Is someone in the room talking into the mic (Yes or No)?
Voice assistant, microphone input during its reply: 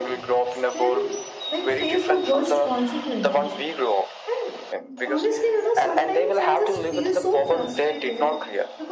Yes